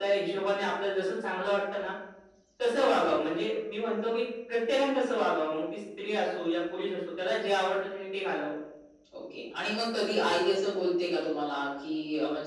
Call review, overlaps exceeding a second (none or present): none